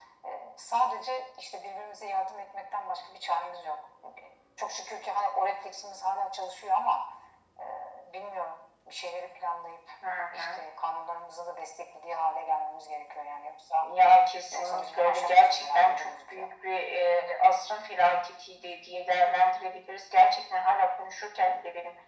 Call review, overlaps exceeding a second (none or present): present